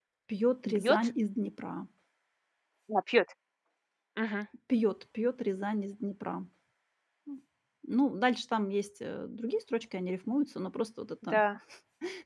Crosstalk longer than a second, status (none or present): none